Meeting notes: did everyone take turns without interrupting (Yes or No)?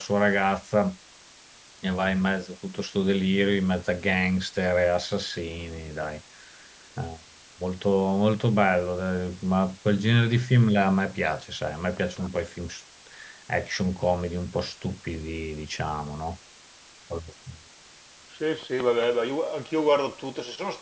Yes